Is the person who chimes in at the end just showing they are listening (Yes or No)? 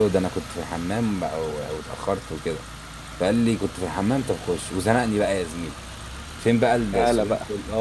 Yes